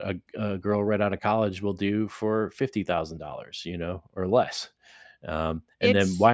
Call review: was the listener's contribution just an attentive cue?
Yes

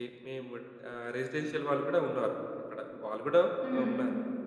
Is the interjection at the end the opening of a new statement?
No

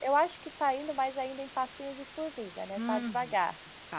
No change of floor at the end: No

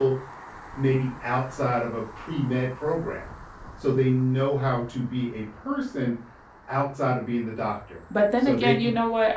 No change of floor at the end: No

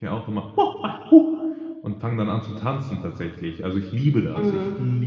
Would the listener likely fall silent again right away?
Yes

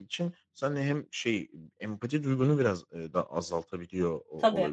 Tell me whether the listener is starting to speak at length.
No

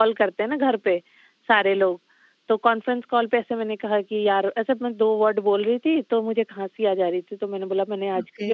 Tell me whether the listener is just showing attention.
Yes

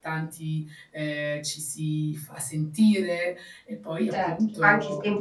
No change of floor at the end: No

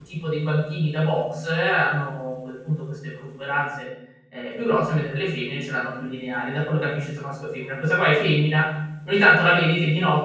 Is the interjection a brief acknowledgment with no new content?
Yes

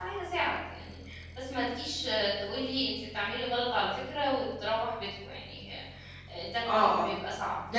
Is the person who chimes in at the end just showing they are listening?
No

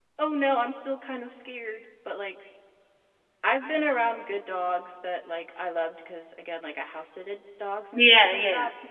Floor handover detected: Yes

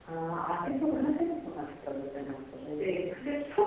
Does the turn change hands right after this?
Yes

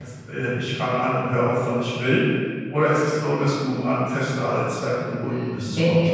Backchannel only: No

